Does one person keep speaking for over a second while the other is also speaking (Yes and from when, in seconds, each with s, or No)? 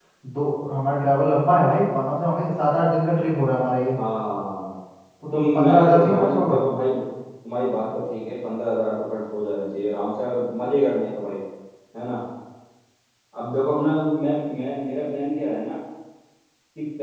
Yes, from 5.3 s